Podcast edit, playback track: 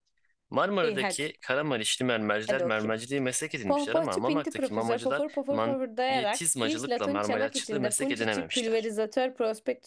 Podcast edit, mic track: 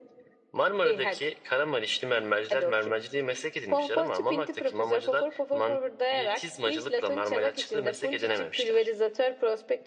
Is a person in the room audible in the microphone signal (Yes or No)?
No